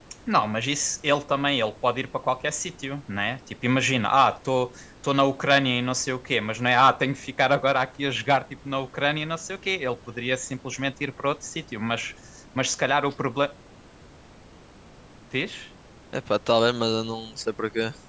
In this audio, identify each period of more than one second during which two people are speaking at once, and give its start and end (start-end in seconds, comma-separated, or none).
none